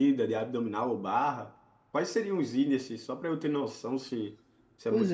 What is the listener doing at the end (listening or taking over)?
taking over